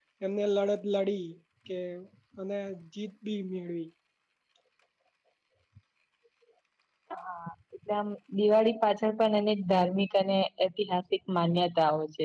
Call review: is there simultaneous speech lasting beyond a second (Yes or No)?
No